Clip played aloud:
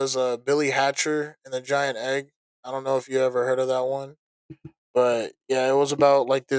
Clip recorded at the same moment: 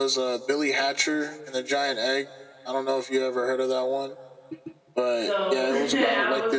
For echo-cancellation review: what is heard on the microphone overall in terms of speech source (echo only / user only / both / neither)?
both